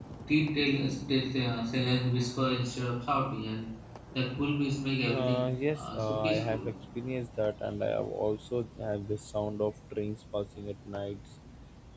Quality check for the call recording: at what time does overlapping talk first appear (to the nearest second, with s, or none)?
5 s